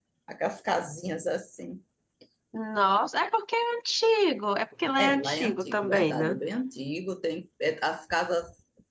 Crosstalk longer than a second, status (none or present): present